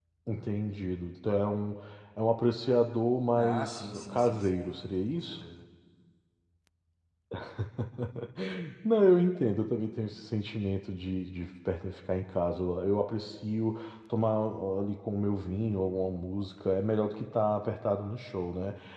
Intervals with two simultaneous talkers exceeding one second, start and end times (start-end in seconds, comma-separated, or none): 3.4-4.7